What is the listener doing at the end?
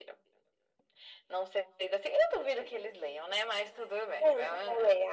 taking over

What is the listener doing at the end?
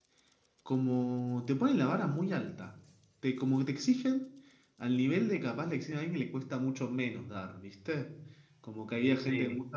listening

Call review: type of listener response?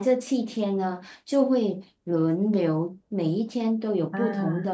listening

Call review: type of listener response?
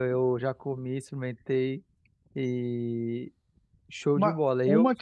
taking over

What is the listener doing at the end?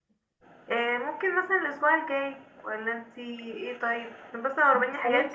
listening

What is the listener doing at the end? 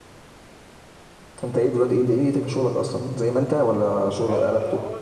taking over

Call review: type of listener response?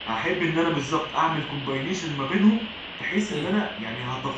listening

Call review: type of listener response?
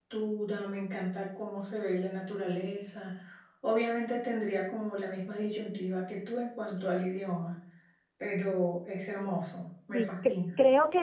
taking over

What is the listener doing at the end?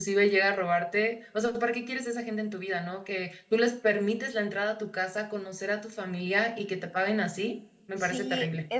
taking over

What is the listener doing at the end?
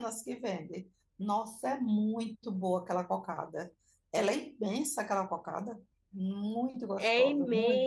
taking over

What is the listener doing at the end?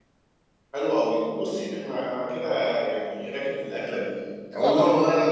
listening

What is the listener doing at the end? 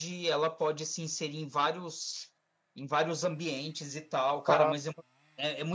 listening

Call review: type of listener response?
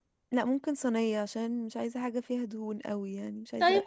taking over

